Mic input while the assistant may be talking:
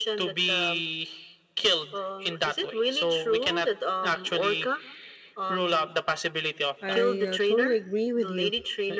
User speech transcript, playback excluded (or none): I uh, totally agree with you.